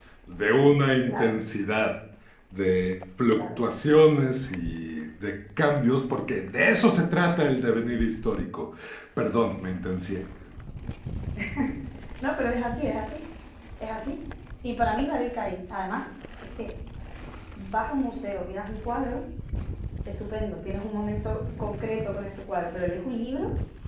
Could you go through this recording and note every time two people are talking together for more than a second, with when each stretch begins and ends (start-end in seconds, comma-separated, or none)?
none